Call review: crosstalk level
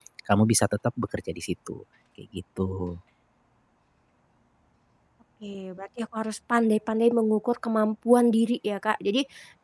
none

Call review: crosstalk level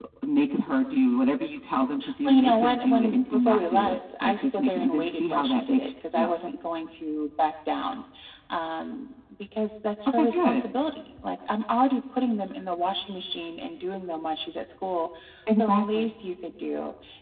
present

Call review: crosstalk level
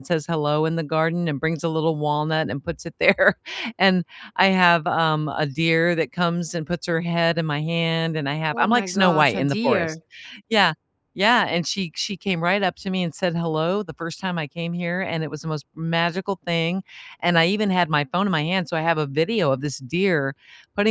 present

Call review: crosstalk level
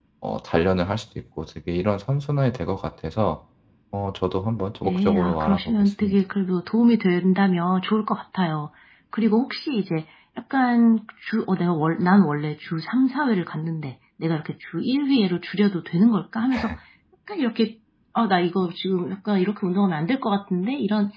present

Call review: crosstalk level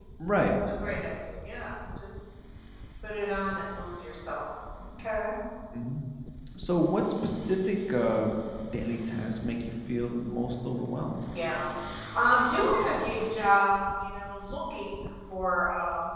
none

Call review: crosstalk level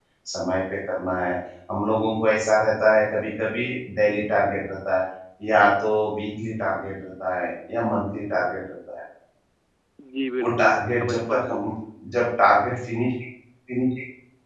present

